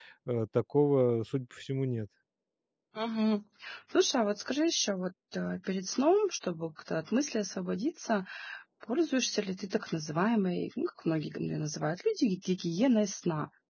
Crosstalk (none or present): none